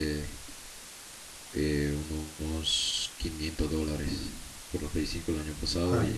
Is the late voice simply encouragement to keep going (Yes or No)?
Yes